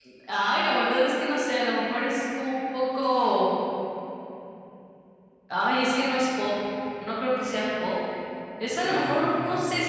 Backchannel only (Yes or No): Yes